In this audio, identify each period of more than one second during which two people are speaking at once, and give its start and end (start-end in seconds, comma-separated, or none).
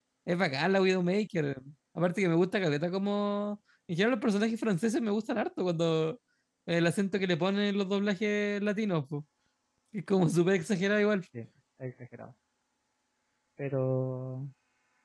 none